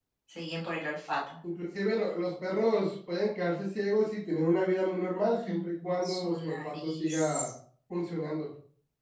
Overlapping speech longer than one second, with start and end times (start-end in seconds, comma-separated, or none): 5.5-7.5